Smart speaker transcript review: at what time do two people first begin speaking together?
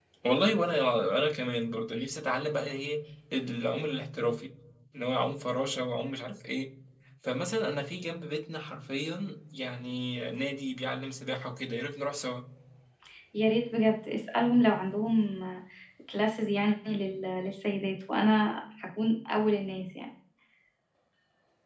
none

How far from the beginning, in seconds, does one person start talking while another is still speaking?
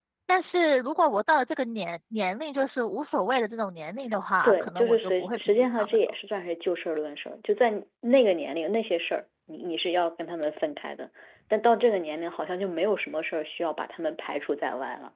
4.4 s

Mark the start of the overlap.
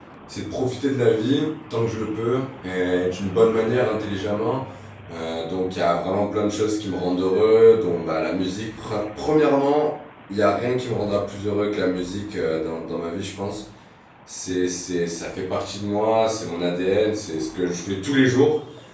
none

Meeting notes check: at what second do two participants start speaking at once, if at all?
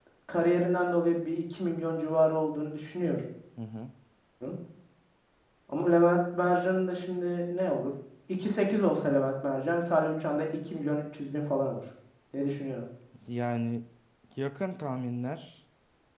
none

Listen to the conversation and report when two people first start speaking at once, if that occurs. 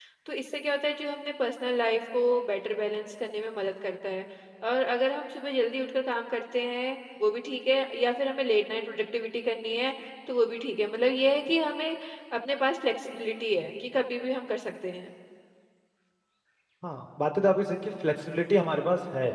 none

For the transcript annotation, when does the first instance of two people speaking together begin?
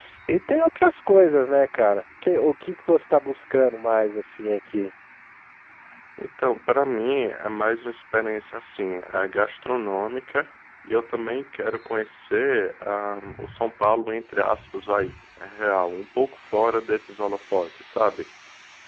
none

